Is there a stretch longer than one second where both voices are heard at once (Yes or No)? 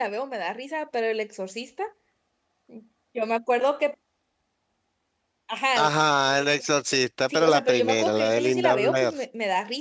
Yes